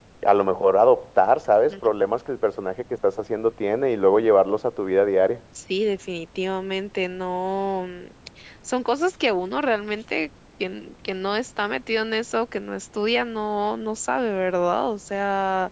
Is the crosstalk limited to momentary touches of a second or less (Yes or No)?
Yes